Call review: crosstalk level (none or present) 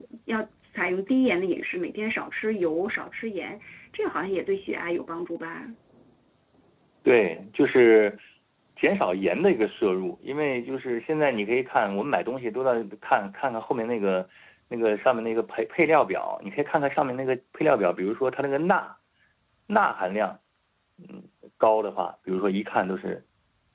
none